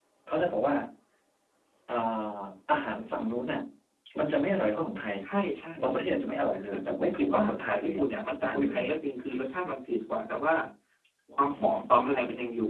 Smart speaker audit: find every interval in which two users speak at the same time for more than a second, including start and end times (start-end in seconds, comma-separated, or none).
6.7-8.0